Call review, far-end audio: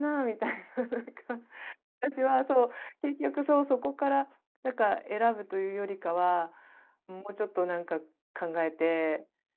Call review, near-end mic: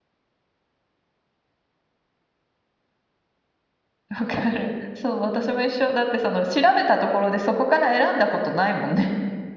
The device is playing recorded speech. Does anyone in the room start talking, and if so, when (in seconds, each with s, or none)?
4.1 s